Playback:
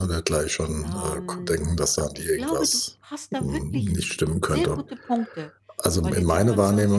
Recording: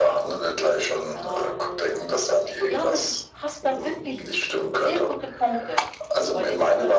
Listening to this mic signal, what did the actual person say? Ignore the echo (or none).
none